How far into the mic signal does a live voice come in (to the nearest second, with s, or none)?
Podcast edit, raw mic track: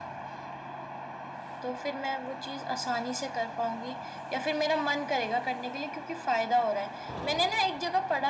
none